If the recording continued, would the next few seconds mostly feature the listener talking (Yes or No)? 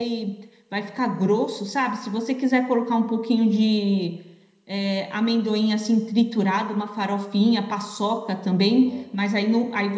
No